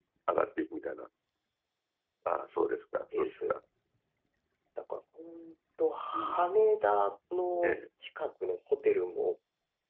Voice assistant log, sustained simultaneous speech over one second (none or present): none